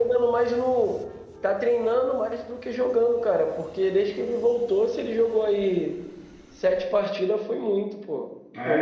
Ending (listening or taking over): taking over